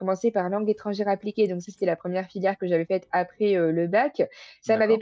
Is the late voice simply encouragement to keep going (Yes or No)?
Yes